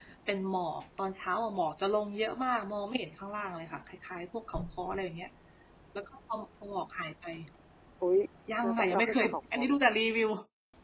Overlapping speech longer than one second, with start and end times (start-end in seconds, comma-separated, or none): 8.6-9.9